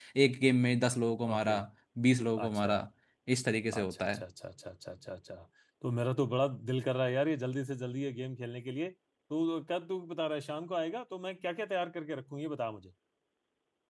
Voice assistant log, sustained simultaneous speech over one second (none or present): none